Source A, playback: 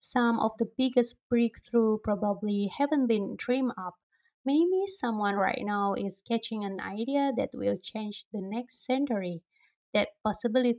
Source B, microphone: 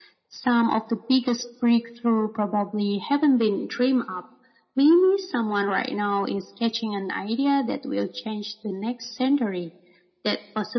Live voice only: none

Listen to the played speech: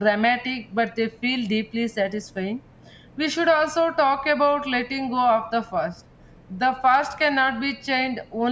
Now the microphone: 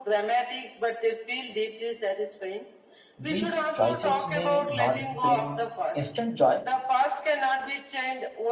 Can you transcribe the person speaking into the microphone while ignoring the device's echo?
these choices may not bring instant joy

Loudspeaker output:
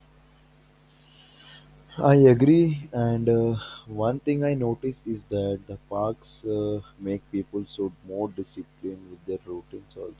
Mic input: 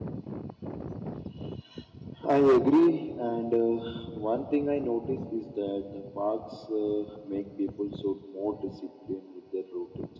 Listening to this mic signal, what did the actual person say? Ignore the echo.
none

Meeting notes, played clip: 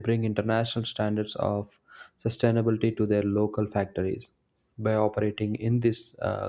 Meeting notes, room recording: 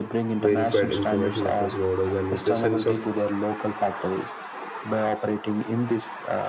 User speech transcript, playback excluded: verified information across borders and with a sense of

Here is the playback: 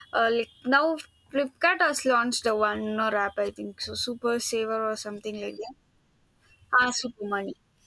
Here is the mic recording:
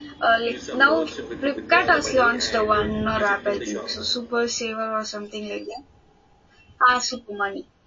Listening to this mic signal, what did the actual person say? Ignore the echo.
use some notes with- to withdraw the money and uh, use it in the shops

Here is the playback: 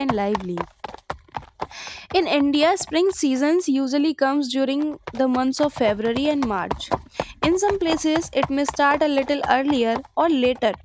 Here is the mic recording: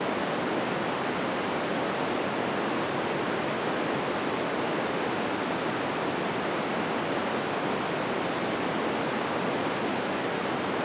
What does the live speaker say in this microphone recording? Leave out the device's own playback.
none

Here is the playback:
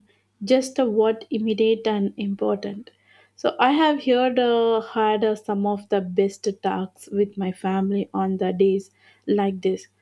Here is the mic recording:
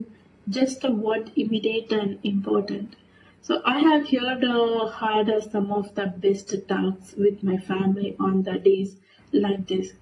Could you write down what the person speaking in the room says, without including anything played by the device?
none

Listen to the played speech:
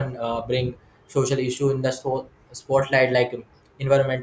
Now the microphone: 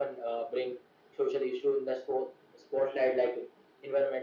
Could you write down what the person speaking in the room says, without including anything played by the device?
none

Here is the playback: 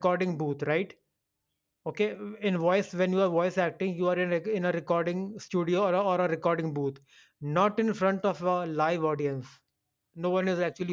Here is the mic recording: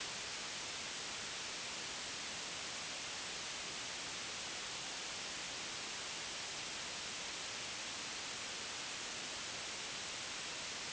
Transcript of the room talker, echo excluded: none

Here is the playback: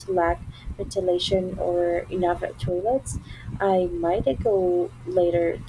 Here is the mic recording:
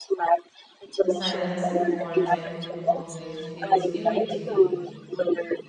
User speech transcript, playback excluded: The silence before a typhoon always feels eerie to me.

